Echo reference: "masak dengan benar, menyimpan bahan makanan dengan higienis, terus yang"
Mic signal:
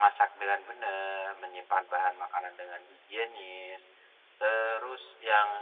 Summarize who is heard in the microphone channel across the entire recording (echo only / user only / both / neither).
echo only